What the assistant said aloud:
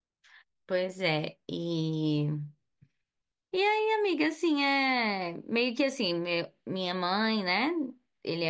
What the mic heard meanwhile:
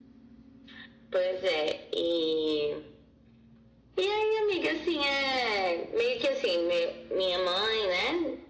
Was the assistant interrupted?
No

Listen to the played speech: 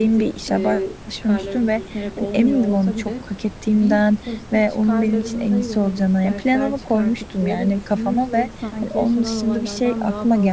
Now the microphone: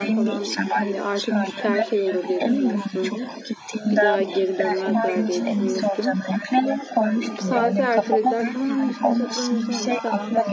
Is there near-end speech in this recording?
Yes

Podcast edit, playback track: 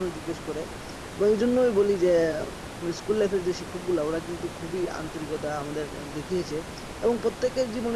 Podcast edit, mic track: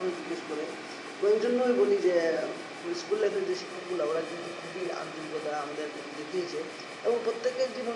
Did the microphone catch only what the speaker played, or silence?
Yes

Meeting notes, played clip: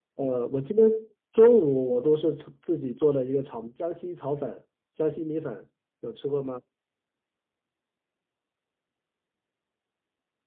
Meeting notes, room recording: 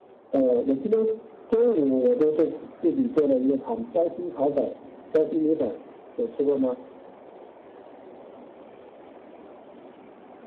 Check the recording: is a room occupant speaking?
No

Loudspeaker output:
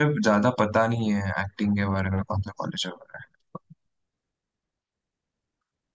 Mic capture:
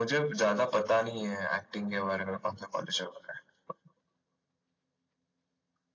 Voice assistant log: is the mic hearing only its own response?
Yes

